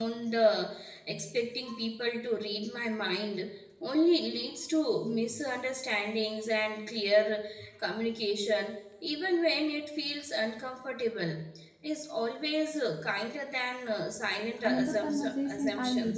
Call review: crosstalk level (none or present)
present